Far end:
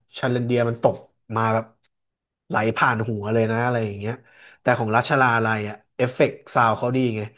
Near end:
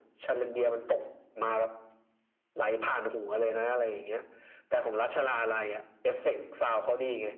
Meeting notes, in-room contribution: none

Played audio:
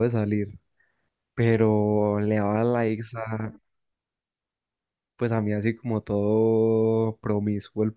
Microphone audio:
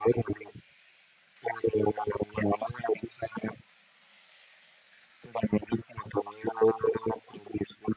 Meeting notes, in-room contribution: none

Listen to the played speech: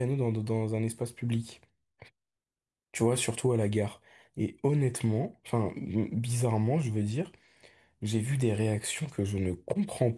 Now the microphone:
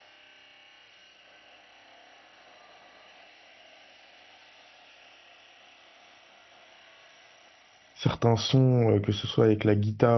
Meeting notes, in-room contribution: present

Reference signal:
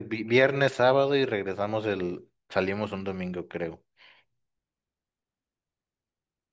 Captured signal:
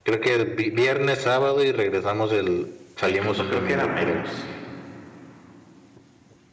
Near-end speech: present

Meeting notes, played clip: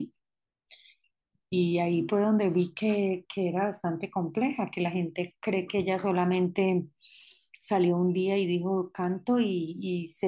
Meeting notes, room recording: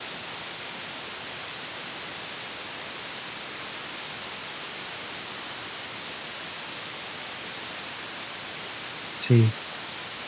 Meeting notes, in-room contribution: present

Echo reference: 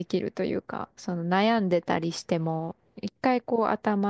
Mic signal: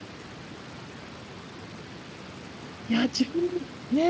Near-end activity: present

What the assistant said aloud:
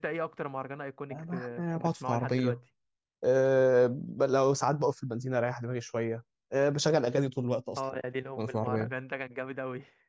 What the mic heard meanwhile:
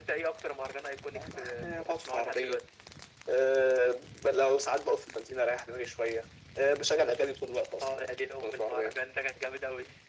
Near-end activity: none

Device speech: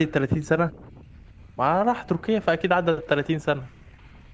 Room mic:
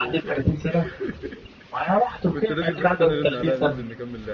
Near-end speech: present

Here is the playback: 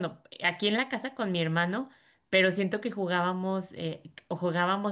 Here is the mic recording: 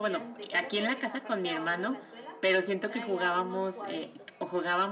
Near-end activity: present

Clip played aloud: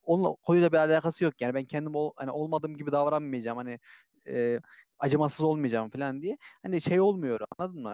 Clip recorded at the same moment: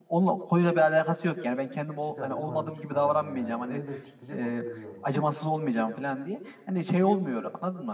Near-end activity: present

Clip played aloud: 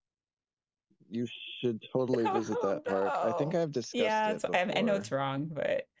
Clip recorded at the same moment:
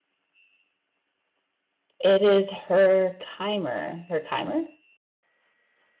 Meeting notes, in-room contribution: present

